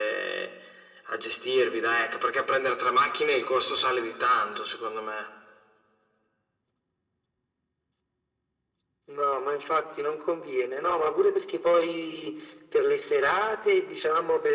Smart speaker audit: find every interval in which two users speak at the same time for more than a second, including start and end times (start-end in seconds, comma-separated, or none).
none